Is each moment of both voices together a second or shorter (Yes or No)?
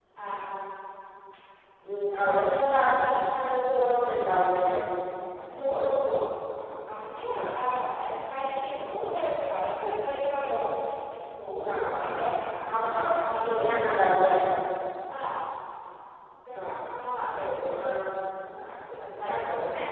No